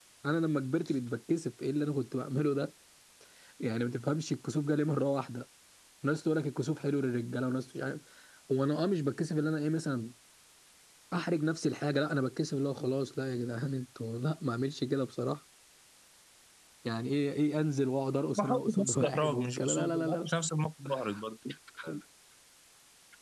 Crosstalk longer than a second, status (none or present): present